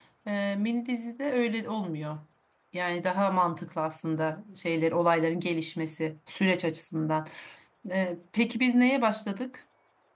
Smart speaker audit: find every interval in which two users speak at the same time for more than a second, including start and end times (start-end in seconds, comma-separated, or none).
none